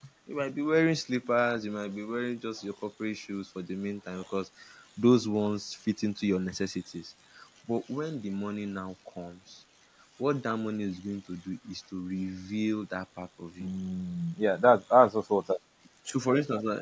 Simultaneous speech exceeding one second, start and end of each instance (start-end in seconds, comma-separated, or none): none